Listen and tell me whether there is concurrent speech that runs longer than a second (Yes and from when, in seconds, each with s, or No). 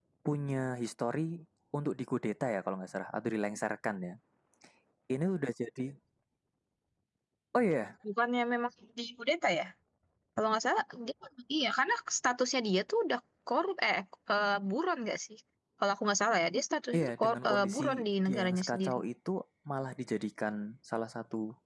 Yes, from 16.9 s